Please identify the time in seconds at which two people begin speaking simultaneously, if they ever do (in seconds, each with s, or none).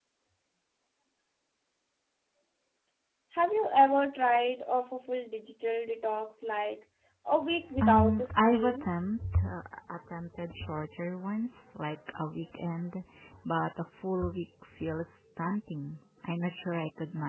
7.7 s